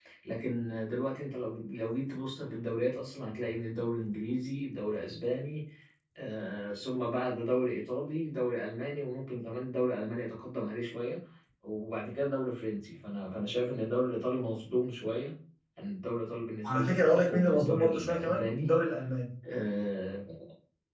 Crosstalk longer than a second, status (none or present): present